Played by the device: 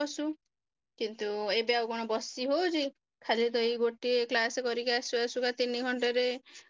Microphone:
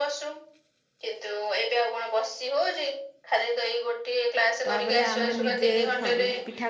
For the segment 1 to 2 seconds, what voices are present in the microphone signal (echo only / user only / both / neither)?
echo only